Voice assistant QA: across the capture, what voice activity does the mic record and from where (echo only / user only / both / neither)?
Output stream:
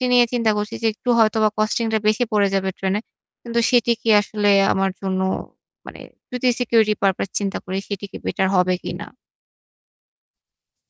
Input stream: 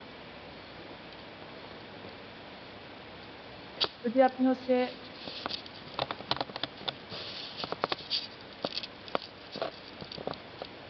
user only